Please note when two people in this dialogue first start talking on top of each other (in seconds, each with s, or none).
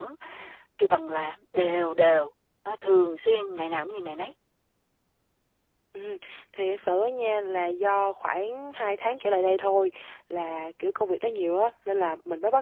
none